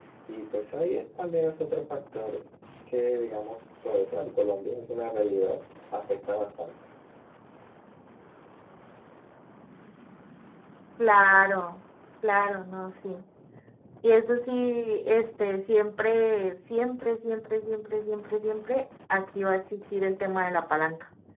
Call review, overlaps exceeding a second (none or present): none